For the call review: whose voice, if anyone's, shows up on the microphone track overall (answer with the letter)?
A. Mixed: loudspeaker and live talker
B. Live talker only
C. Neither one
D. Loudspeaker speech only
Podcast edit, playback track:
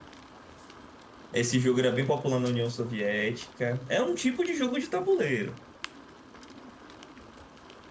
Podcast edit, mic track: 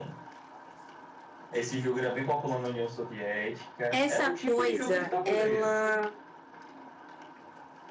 A